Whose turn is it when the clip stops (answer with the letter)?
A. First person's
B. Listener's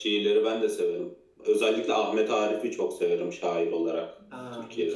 B